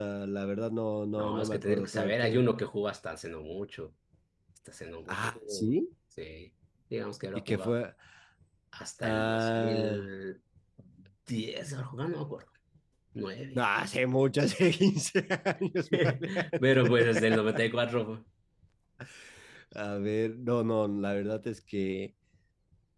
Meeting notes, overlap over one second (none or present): present